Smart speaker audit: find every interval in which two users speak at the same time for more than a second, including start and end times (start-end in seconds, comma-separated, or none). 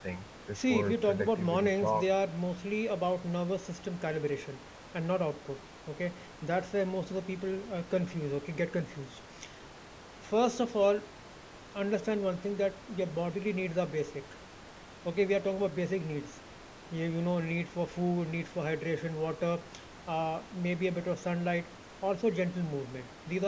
0.6-2.1